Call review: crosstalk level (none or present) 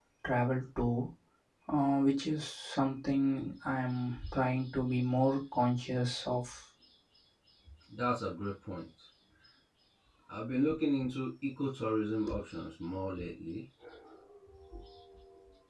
none